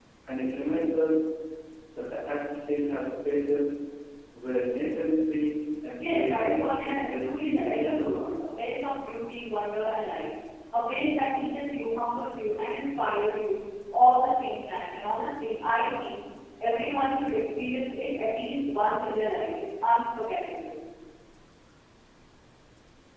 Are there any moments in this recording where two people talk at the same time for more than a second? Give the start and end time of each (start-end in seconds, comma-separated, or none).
6.0-8.0